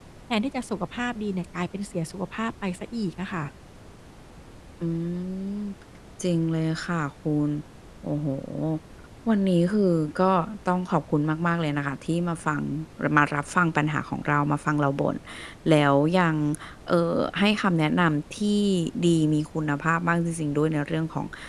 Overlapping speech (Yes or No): No